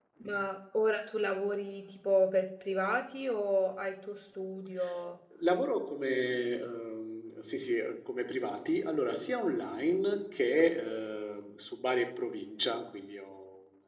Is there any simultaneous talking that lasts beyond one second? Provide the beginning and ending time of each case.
none

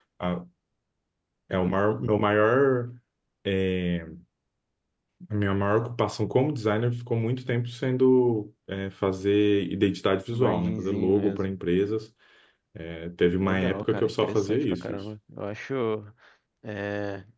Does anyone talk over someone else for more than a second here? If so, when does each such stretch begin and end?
10.3-11.5, 13.4-15.0

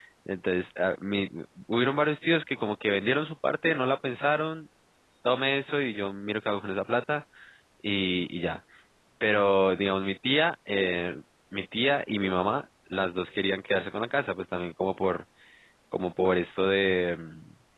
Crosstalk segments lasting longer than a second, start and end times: none

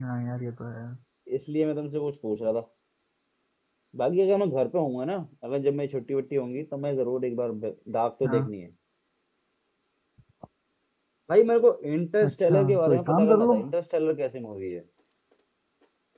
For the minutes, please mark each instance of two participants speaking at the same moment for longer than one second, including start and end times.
12.3-13.6

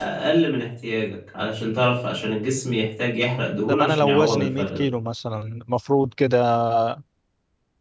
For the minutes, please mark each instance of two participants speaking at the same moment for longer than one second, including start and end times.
3.7-4.9

